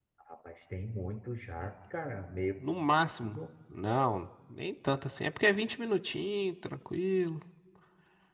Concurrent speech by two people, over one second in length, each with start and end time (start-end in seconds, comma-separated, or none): none